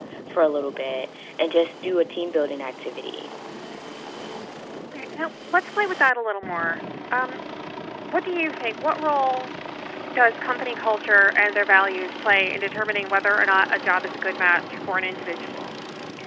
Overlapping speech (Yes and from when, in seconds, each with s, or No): No